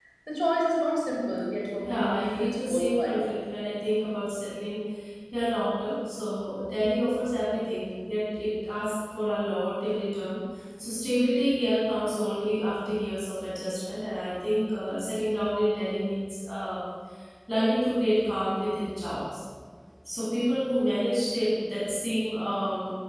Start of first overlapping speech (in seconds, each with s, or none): 1.8 s